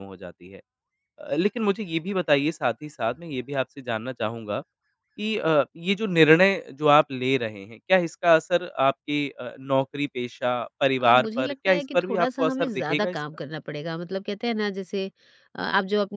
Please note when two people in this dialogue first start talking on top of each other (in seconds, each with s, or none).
11.0 s